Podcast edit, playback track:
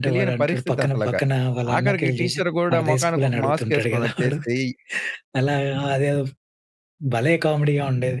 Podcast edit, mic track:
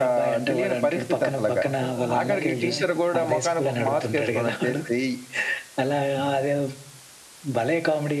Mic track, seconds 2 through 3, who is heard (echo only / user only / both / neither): both